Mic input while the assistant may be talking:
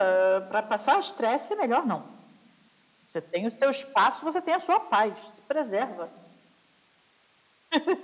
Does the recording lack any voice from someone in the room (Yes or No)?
Yes